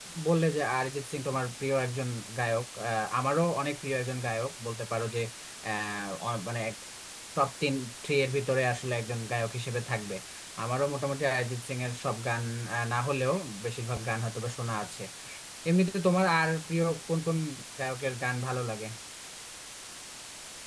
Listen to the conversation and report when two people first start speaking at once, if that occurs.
none

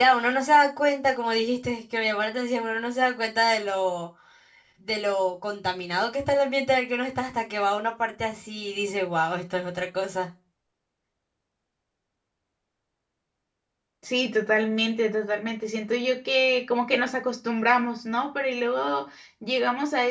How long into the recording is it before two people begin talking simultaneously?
none

